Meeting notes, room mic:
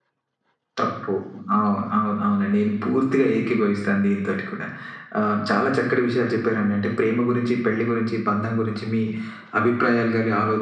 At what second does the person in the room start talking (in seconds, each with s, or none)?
none